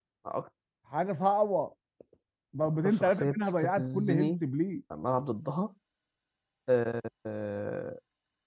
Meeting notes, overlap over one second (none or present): present